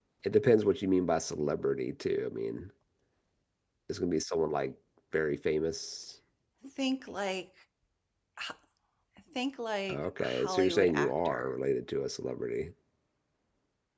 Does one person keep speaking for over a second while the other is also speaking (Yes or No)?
Yes